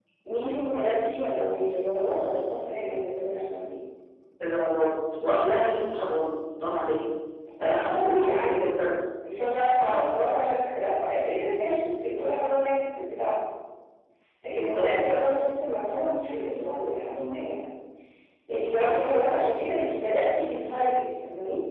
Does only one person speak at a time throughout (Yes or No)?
No